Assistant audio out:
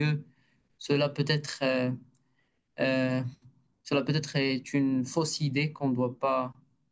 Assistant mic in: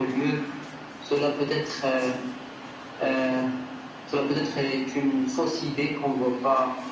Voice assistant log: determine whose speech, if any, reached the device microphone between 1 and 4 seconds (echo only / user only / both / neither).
echo only